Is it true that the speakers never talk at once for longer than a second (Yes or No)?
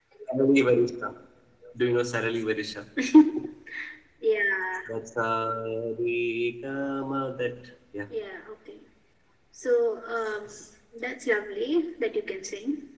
Yes